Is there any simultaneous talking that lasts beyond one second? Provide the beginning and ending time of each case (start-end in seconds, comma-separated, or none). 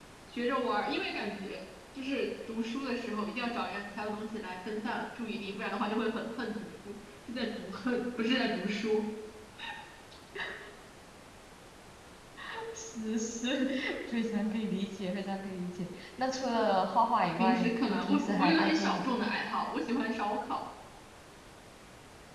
17.4-19.2